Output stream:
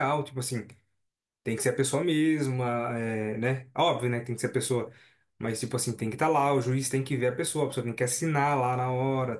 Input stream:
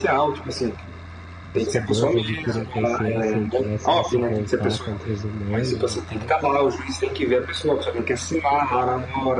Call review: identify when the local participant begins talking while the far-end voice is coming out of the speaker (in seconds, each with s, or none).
1.5 s